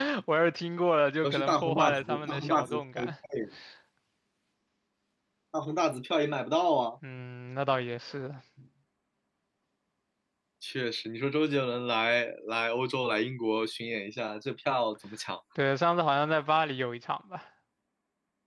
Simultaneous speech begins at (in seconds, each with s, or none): 1.2 s